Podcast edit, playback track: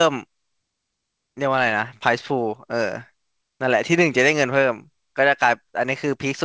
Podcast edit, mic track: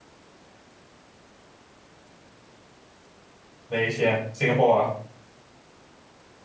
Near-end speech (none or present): present